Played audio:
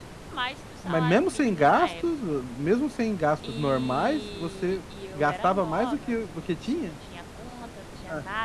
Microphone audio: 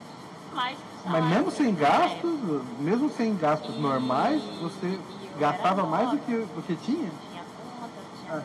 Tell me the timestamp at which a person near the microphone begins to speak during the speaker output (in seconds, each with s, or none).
none